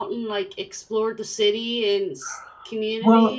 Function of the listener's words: taking over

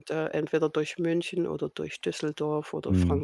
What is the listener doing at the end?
taking over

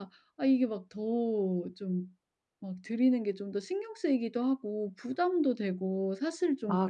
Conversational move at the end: taking over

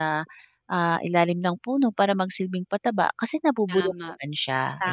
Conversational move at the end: taking over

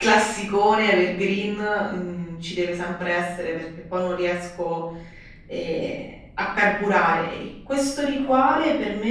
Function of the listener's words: listening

